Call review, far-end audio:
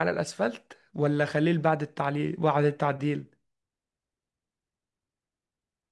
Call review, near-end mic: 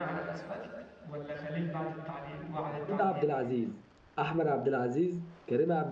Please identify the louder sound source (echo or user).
user